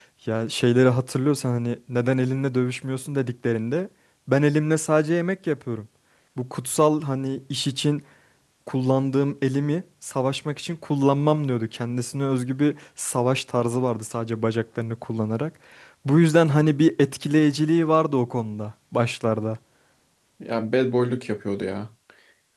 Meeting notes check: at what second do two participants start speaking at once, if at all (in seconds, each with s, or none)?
none